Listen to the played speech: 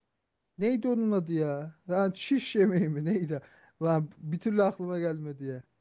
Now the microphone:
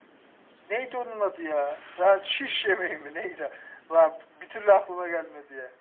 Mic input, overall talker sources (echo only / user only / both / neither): echo only